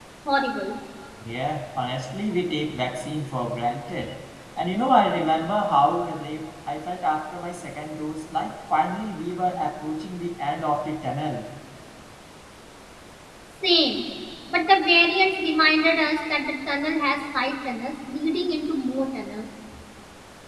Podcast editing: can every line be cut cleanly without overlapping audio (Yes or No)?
Yes